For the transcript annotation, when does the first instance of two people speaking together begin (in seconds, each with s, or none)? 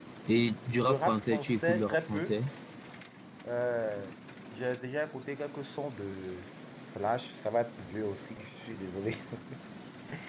0.9 s